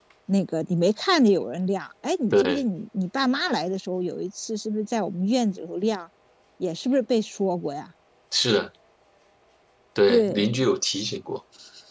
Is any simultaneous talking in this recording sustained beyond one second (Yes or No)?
No